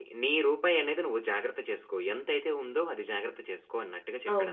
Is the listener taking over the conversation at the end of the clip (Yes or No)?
Yes